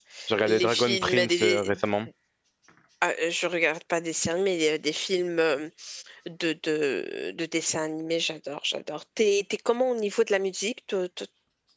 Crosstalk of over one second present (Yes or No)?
Yes